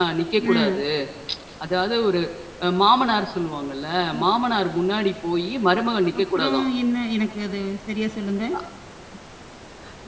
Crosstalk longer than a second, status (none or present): none